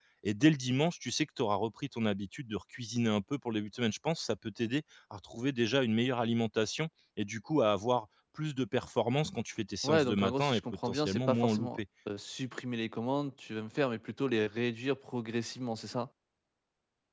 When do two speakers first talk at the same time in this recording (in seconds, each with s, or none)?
9.8 s